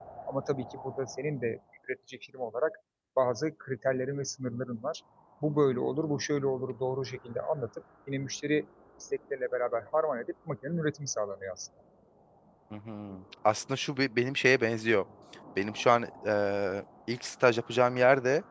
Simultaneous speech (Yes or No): No